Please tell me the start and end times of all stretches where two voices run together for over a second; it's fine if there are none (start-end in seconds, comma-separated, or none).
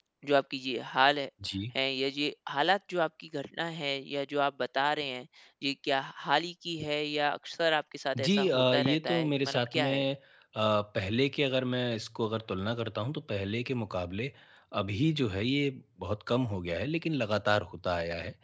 8.2-10.0